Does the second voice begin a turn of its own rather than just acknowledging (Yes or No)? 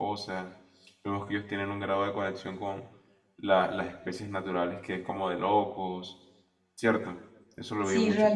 Yes